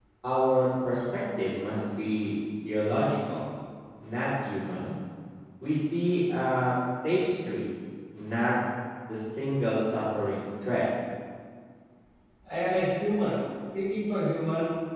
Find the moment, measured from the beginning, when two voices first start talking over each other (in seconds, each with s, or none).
none